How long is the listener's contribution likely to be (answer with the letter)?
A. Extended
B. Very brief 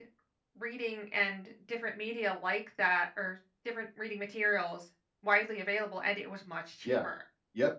A